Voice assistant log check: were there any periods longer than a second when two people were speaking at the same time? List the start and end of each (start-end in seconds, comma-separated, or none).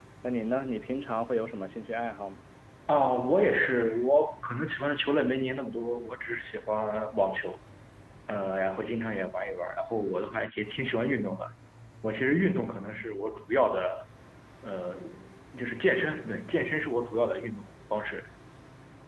none